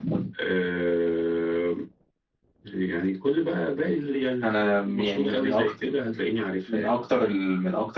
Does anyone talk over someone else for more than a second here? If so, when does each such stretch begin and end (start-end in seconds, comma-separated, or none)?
4.4-5.7